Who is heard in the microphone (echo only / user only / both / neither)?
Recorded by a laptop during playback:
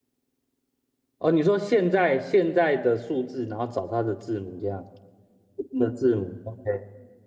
user only